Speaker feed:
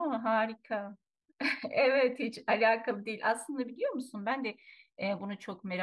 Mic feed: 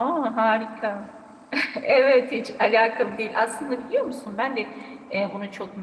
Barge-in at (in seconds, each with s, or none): none